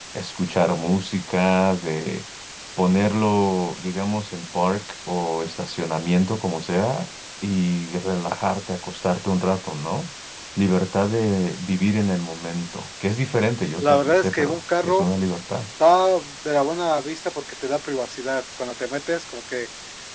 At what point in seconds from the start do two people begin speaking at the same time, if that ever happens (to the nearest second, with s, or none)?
14 s